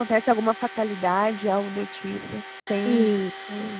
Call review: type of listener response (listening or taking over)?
taking over